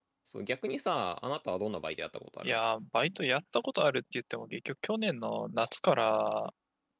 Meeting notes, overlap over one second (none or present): none